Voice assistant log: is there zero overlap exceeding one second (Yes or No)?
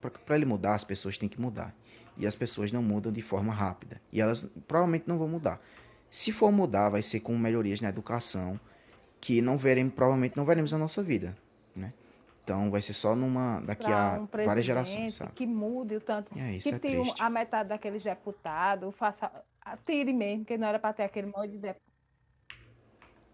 No